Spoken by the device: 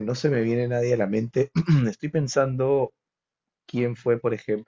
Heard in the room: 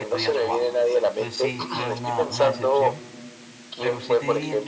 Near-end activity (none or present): present